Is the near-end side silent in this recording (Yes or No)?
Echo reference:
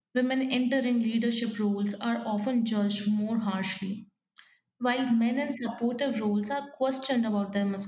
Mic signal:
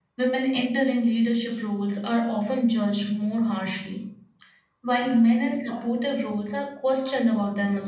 Yes